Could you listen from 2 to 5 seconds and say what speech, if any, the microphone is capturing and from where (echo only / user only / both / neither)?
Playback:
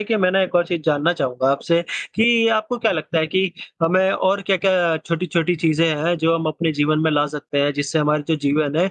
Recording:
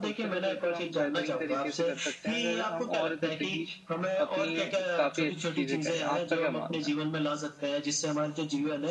both